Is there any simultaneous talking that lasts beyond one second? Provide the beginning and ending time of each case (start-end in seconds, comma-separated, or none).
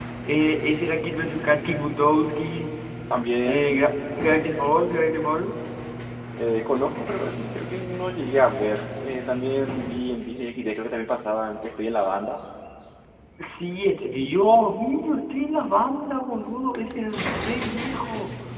none